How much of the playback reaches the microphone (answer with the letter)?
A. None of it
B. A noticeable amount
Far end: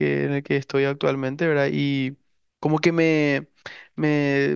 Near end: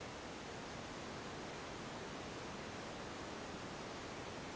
A